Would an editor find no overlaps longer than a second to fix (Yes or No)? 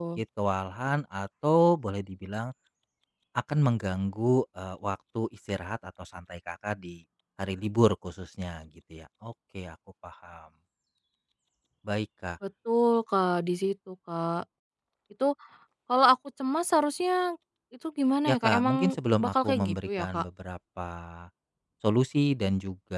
No